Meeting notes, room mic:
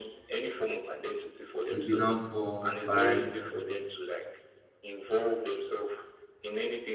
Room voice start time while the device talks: 1.7 s

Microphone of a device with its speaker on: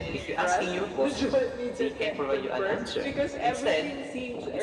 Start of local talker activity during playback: none

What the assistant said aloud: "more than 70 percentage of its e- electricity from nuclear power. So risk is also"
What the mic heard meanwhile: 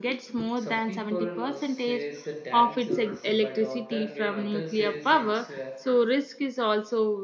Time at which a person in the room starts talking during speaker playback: 0.5 s

